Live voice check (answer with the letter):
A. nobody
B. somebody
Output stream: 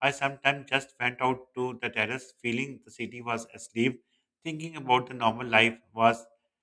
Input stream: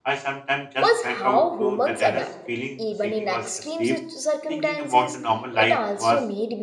B